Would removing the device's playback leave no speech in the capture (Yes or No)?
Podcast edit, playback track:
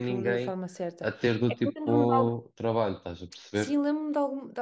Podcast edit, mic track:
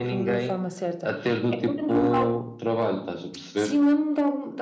Yes